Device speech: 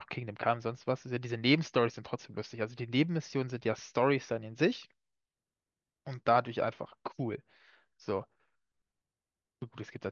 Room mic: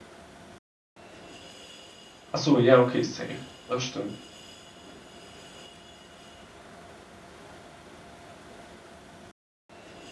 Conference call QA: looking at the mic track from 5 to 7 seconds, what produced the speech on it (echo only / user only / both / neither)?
neither